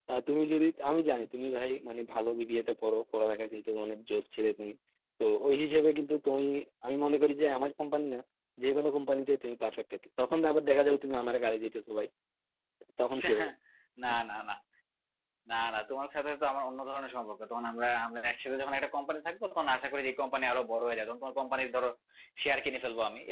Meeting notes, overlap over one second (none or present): none